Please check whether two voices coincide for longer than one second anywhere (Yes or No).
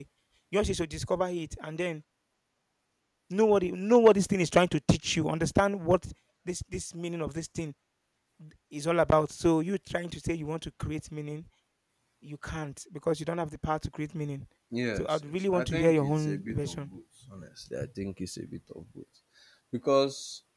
Yes